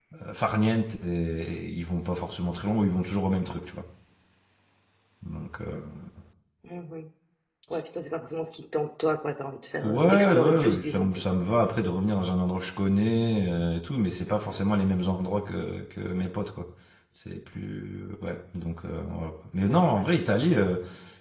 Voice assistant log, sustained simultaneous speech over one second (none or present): present